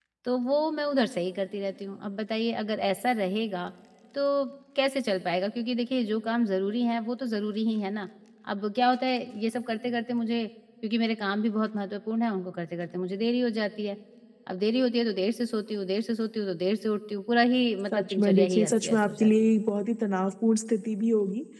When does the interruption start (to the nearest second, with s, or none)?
18 s